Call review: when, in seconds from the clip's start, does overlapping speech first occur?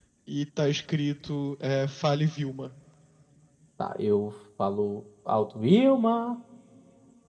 none

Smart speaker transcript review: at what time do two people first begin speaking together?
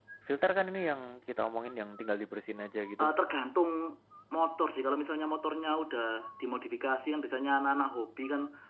none

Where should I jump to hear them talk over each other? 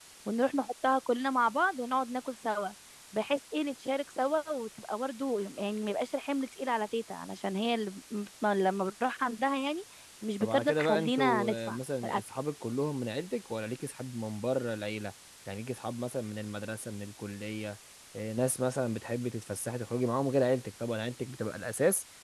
10 s

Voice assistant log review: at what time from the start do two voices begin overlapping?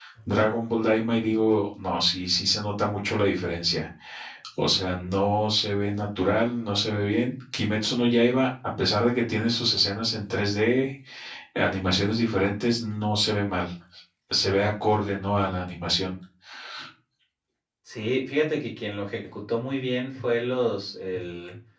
none

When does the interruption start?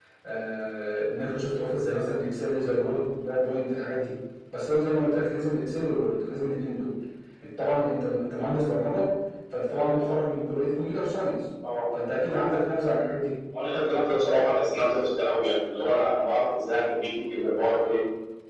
none

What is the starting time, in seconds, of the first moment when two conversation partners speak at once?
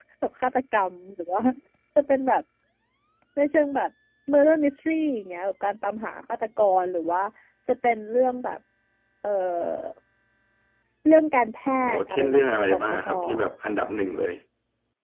12 s

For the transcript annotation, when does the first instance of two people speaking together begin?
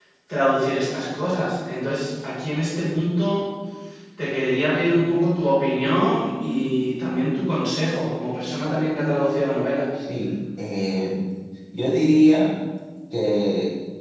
none

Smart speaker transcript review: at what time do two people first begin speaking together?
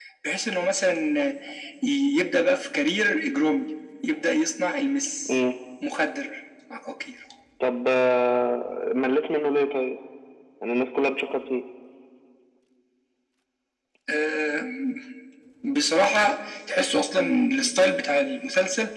none

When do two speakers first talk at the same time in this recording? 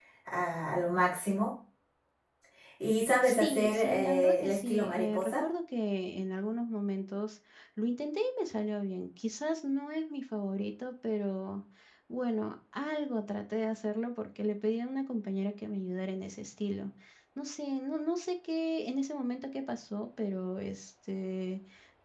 3 s

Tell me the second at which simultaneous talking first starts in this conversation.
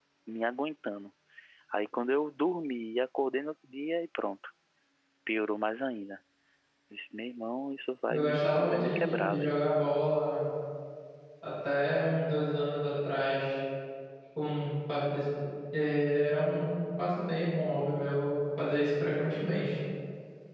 8 s

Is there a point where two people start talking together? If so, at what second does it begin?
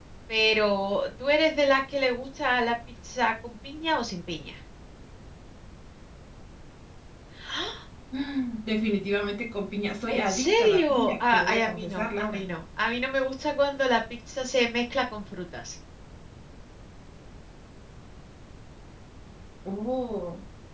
10 s

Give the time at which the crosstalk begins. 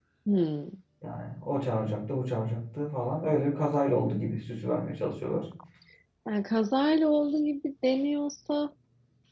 none

